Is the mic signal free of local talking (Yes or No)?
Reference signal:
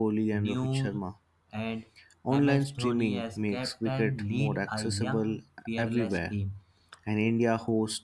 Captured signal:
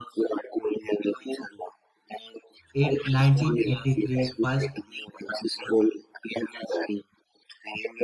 No